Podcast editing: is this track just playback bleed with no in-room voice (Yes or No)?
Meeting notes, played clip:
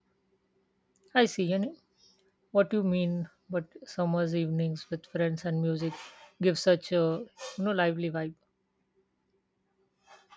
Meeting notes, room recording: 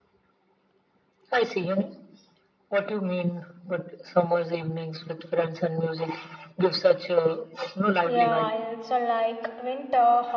No